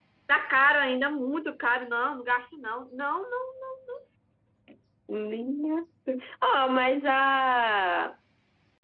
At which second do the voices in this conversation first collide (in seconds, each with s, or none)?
none